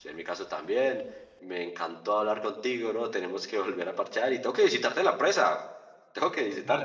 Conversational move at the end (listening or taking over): taking over